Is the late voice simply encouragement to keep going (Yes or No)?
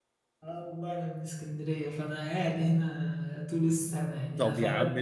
No